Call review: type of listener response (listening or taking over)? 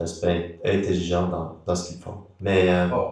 listening